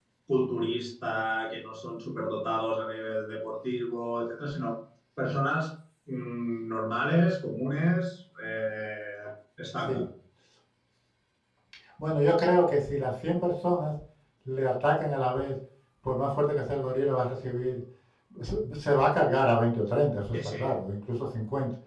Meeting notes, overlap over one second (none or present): none